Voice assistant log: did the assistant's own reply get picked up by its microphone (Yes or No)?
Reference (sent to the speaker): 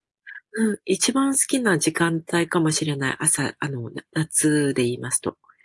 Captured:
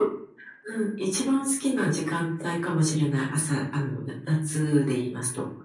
Yes